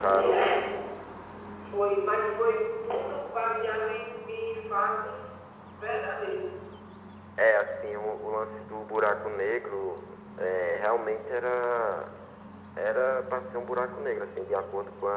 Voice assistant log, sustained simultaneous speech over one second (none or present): none